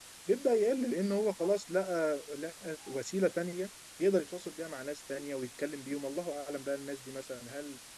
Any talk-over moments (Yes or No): No